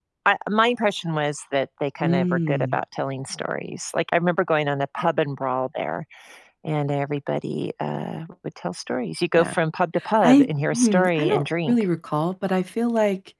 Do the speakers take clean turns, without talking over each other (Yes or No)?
No